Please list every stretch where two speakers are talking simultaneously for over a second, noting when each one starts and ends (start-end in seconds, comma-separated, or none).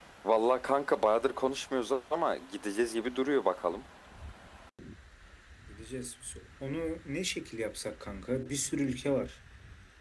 none